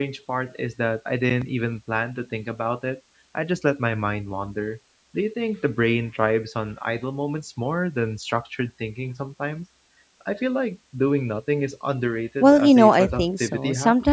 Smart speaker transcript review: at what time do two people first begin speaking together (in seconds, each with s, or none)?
12.4 s